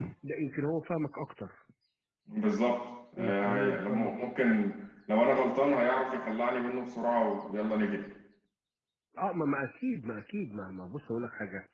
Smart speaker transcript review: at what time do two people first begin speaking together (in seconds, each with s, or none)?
3.2 s